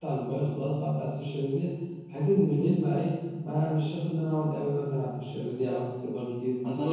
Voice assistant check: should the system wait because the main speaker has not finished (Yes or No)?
No